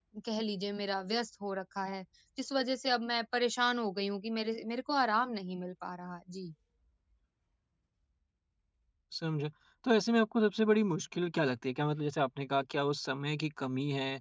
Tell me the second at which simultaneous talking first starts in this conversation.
none

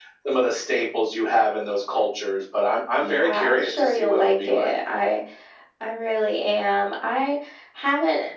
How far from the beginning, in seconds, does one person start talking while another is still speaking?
3.0 s

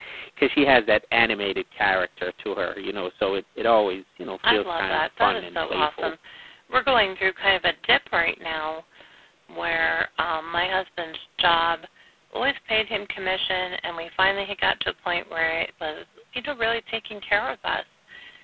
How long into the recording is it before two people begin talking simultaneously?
4.4 s

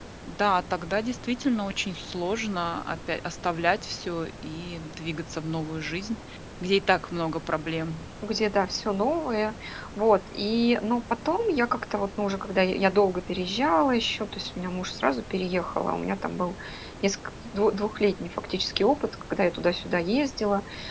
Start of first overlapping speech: none

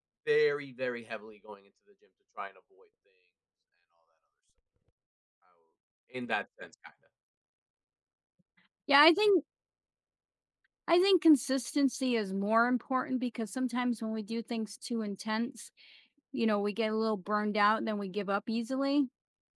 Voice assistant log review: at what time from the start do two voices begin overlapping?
none

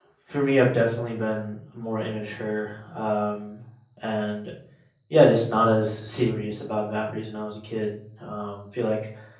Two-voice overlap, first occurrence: none

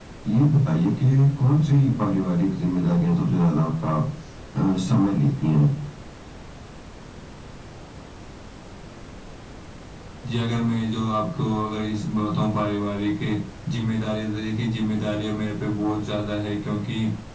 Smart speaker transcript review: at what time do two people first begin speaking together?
none

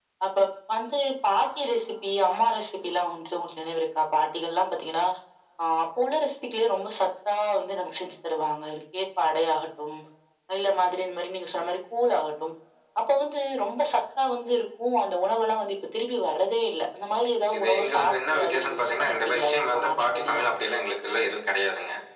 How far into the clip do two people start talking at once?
17.5 s

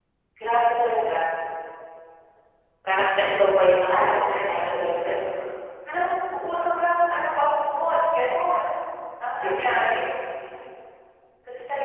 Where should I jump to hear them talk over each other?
3.8 s

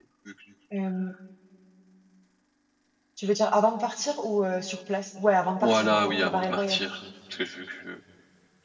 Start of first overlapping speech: 5.6 s

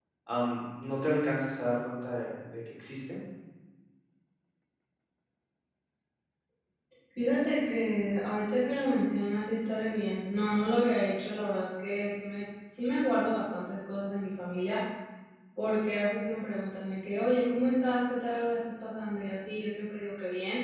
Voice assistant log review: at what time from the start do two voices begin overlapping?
none

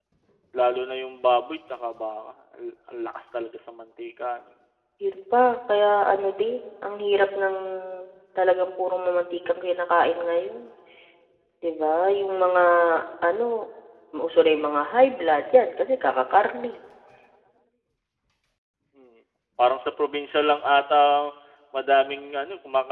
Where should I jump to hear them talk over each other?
none

